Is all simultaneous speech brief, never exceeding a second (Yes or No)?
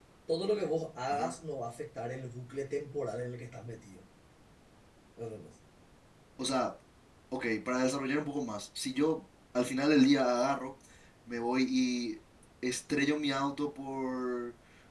Yes